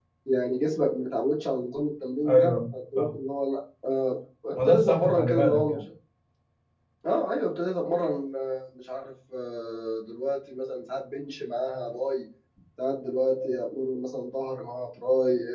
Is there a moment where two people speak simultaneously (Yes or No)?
Yes